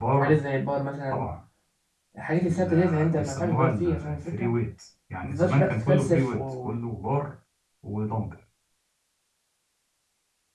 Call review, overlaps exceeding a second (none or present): present